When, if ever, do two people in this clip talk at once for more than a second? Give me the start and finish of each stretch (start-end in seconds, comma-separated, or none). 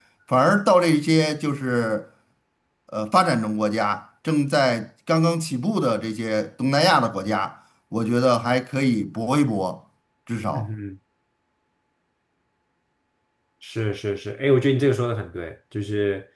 none